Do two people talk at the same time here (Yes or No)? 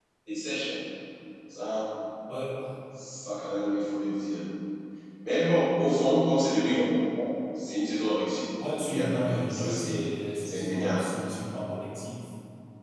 Yes